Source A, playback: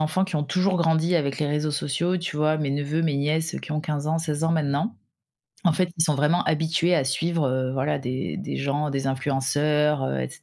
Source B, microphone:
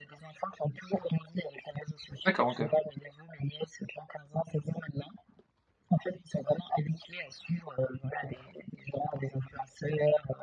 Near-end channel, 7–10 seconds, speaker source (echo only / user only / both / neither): echo only